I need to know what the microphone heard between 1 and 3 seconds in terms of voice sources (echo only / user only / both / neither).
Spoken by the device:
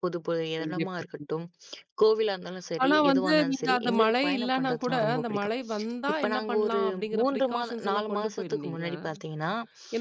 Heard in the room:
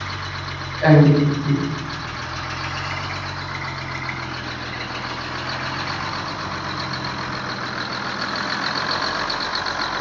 user only